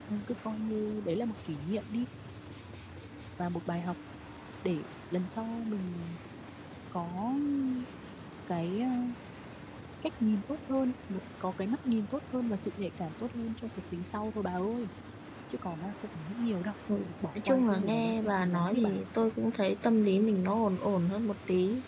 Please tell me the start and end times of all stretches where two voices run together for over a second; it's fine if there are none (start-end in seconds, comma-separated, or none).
17.4-18.9